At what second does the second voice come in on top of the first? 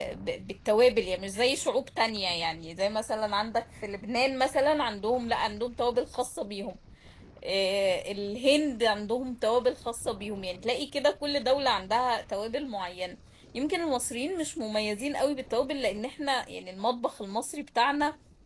none

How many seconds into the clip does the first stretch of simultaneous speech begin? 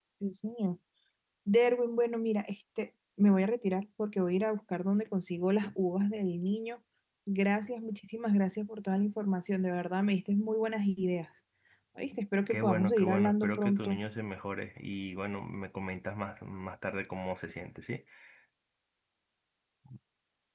12.5 s

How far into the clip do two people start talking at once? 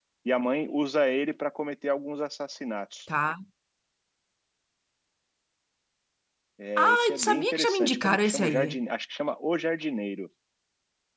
6.8 s

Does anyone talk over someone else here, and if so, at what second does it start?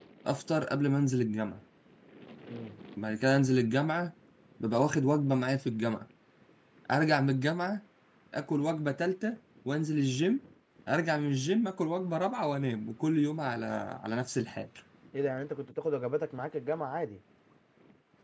none

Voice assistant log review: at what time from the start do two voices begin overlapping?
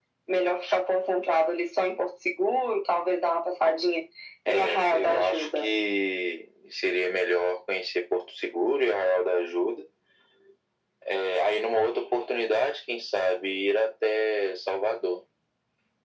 4.5 s

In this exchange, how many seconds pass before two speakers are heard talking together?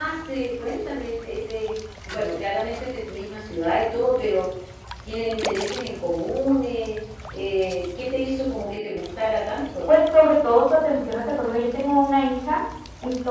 none

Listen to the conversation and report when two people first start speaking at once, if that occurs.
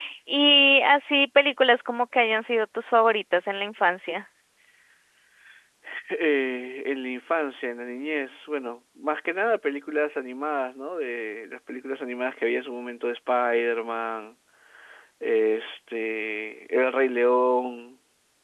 none

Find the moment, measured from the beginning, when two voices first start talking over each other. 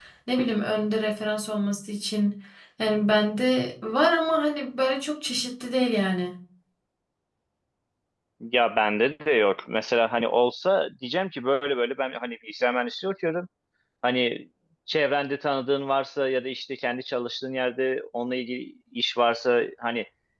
none

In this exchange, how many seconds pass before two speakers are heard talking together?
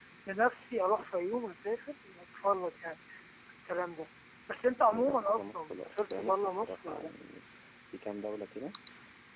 4.8 s

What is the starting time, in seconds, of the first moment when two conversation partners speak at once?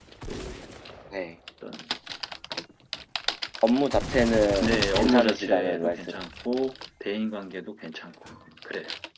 4.6 s

